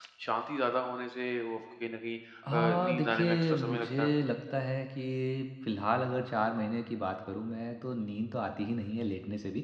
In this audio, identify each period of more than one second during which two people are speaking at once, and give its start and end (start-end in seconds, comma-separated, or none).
2.5-4.1